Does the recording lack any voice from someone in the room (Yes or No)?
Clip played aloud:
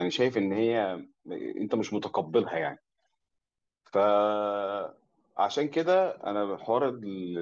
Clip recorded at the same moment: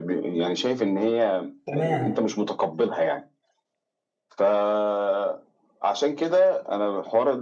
No